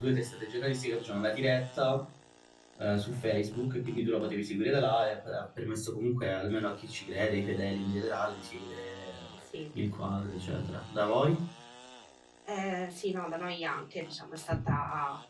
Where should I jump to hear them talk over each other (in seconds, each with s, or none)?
none